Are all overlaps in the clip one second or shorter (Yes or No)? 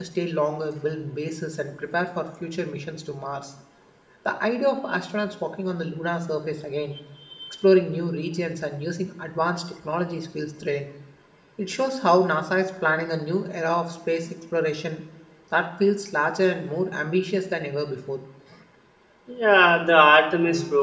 Yes